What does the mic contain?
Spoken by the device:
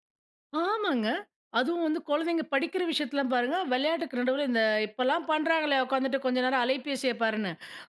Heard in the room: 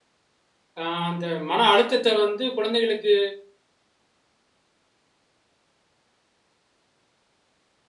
user only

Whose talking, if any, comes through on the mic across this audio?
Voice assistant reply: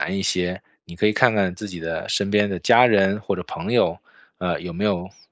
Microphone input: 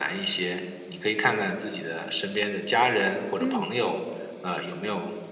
both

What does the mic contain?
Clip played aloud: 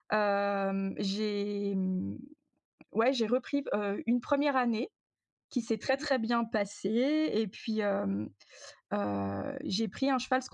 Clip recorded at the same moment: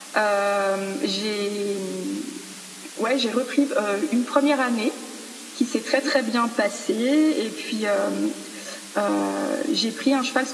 echo only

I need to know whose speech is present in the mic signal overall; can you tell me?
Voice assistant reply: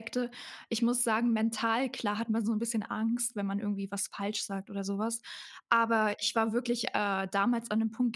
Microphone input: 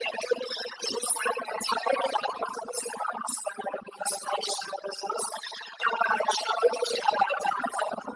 echo only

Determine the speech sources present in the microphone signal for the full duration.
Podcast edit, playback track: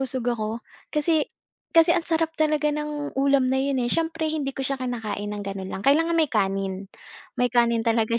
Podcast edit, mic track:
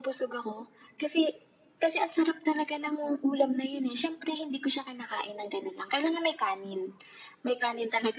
echo only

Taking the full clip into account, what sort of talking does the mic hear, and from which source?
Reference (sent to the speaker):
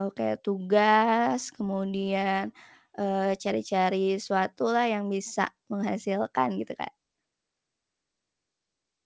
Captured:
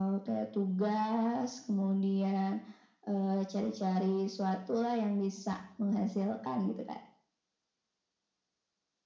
echo only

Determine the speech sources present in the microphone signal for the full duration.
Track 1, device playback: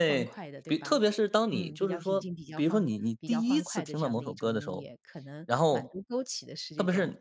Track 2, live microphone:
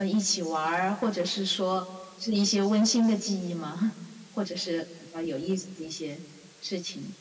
user only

